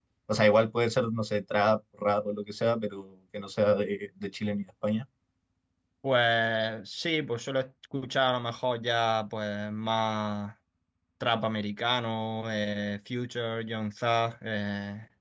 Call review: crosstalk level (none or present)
none